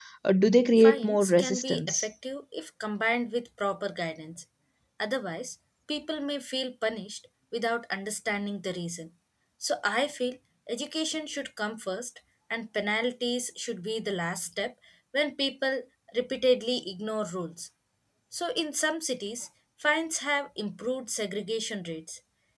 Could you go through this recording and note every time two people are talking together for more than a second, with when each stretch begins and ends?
0.8-2.1

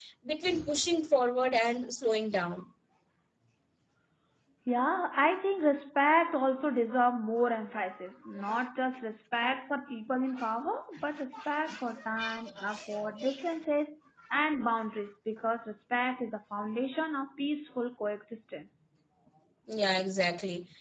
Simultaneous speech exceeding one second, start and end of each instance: none

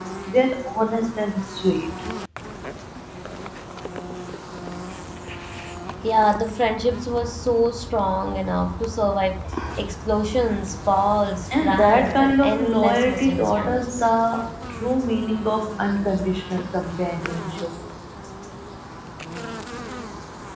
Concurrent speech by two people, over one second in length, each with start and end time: 11.6-14.0

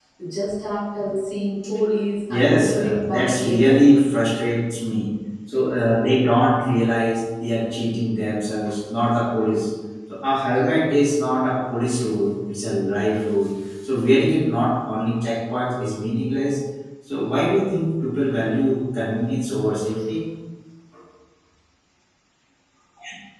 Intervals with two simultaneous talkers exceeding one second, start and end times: 2.3-3.8

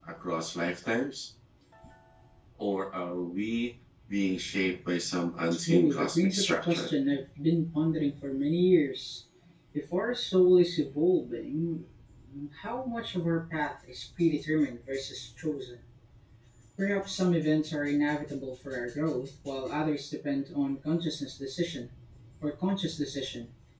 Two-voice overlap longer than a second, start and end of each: 5.7-6.9

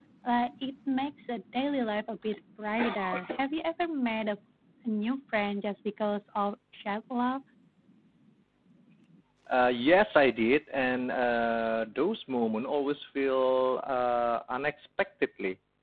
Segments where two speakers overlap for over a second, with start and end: none

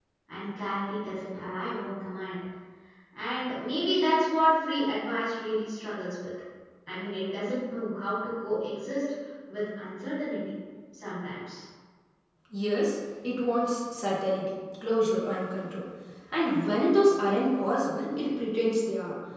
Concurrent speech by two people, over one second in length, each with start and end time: none

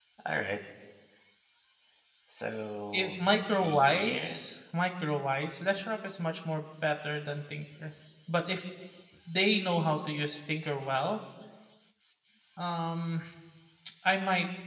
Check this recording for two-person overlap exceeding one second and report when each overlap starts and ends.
2.9-4.4

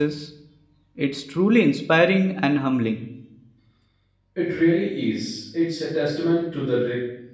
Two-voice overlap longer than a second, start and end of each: none

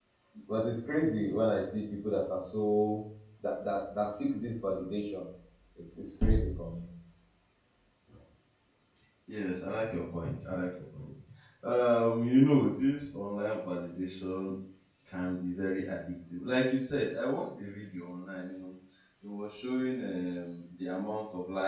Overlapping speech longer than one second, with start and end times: none

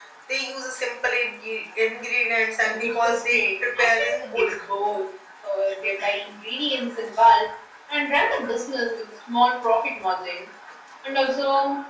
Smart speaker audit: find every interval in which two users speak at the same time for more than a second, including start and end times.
2.6-4.6

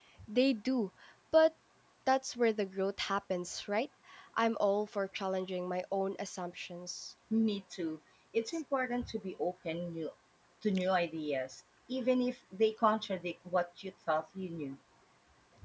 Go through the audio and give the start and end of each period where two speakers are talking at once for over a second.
none

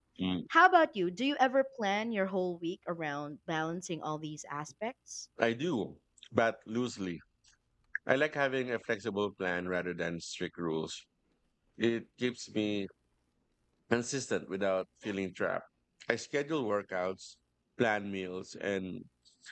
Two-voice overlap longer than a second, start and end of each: none

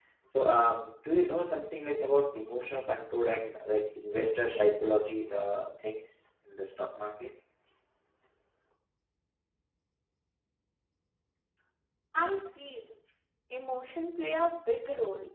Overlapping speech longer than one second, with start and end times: none

